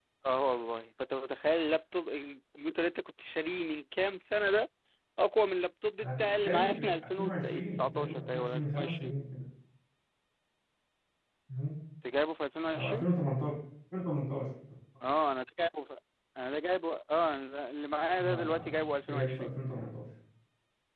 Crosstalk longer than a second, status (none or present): present